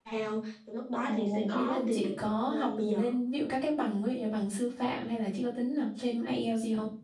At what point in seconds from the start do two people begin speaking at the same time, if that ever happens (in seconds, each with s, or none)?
1.1 s